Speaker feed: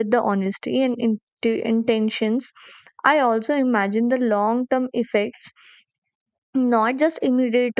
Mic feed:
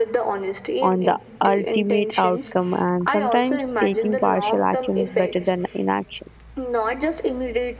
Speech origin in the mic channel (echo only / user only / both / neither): both